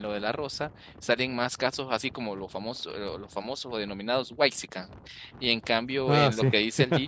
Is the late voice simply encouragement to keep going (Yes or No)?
Yes